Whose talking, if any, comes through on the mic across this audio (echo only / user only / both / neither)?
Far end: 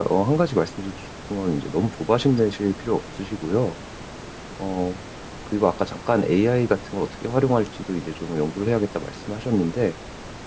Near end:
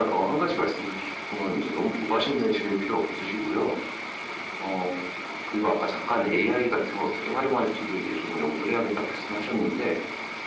echo only